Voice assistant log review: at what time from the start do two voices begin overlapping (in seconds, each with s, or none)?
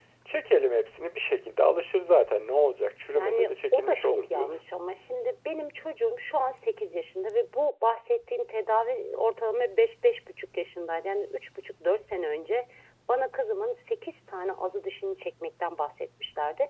3.1 s